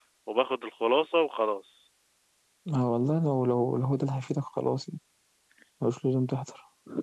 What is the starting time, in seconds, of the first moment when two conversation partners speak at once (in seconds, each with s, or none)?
none